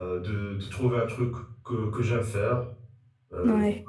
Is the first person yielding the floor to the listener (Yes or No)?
No